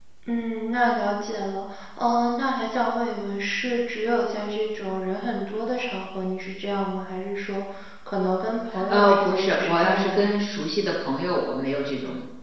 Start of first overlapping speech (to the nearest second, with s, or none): 9 s